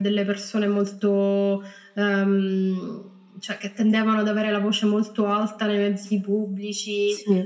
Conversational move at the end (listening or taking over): listening